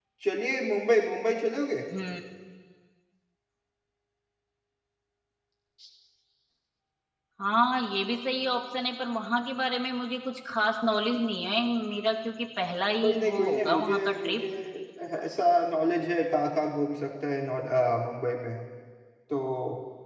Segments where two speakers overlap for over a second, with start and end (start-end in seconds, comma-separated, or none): 13.0-14.4